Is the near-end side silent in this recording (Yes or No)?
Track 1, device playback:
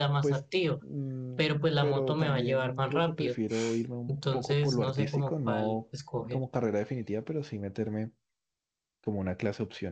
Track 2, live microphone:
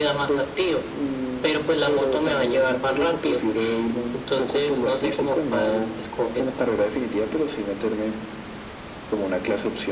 Yes